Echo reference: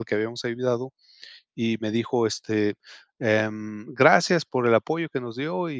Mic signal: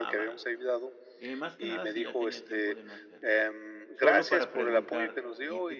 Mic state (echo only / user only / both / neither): both